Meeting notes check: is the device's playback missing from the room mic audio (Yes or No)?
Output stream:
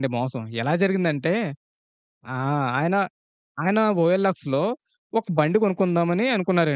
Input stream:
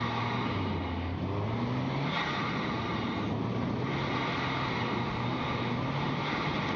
Yes